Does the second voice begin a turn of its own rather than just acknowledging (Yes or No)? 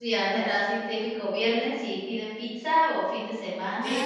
Yes